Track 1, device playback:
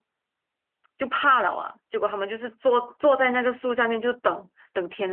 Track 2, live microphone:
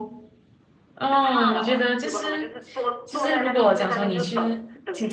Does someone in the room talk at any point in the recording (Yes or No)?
Yes